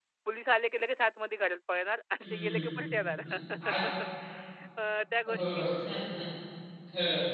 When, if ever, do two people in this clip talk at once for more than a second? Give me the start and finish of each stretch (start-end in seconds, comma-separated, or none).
none